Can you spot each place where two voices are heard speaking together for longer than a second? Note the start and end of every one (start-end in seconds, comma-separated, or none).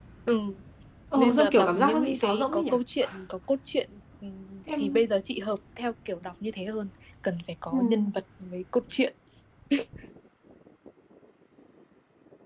1.2-2.6